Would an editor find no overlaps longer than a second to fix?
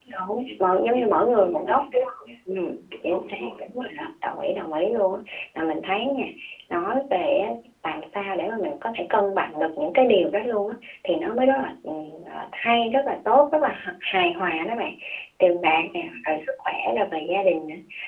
No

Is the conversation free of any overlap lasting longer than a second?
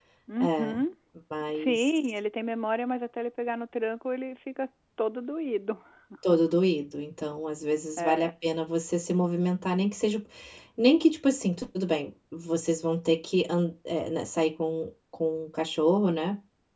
Yes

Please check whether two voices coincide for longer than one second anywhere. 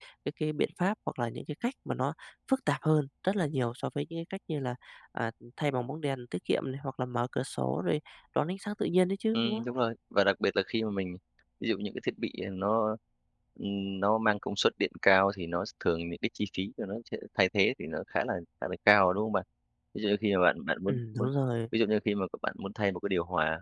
No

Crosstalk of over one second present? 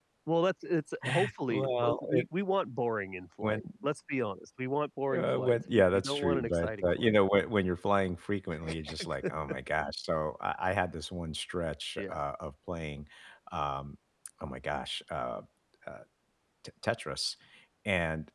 Yes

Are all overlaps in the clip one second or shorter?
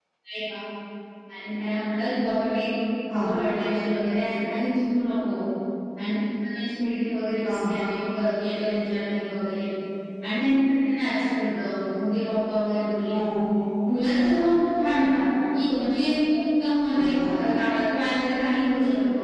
Yes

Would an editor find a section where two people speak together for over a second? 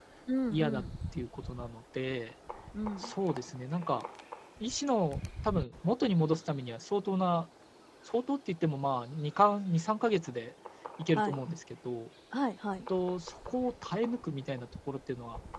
No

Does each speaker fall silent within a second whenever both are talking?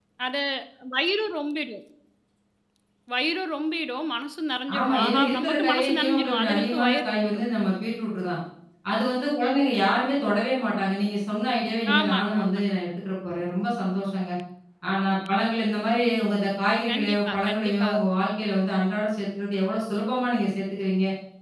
No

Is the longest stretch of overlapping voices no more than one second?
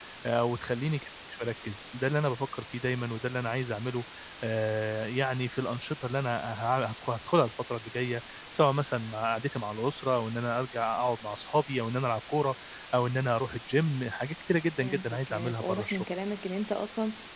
No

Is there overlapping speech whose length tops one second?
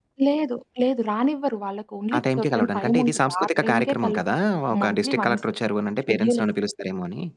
Yes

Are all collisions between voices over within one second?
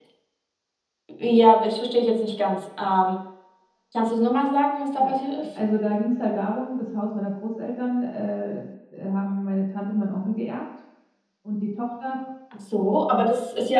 Yes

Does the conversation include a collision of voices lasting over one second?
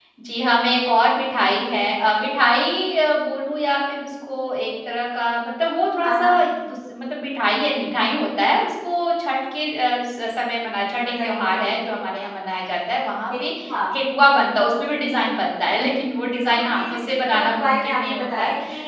Yes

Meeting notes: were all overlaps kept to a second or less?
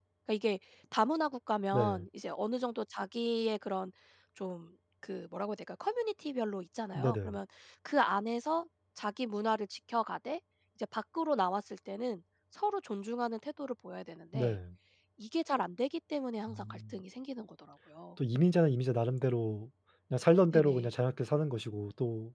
Yes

